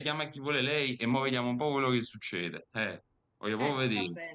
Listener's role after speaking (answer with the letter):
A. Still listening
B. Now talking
B